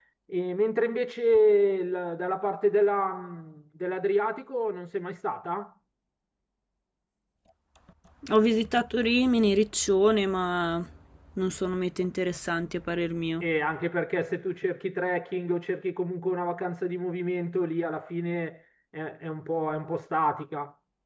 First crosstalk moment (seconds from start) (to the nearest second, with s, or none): none